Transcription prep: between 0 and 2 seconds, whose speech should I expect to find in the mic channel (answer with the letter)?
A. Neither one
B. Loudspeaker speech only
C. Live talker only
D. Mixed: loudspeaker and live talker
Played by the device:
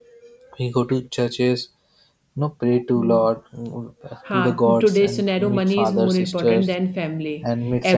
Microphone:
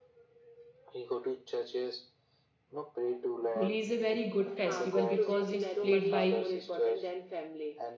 B